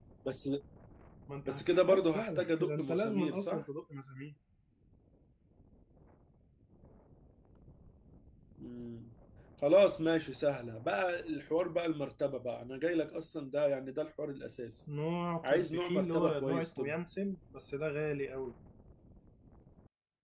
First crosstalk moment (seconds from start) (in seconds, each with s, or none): 1.5 s